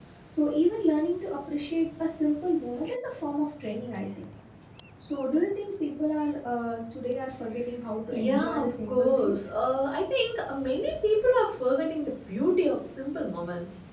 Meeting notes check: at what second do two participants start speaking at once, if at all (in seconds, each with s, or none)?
8.1 s